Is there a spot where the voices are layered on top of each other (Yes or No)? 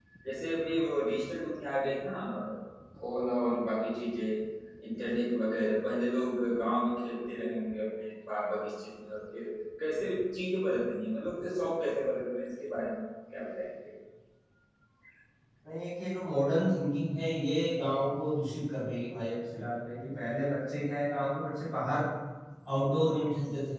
No